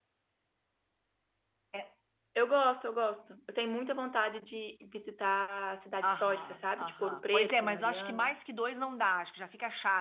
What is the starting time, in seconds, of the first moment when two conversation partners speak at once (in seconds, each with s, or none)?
6.0 s